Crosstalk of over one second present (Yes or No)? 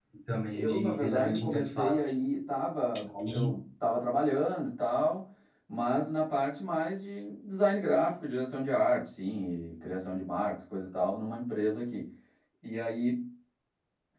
Yes